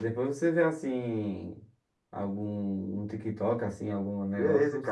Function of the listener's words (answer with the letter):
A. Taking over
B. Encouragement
A